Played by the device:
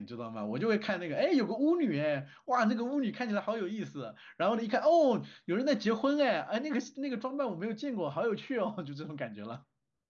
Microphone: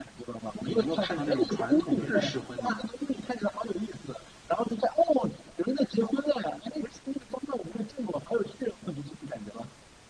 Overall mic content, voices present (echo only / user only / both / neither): both